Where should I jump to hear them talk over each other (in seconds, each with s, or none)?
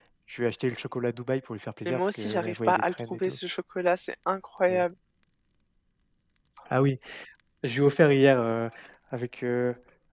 1.9 s